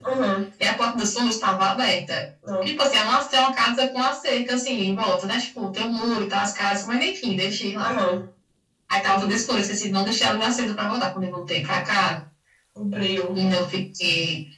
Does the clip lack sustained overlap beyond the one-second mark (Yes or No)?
Yes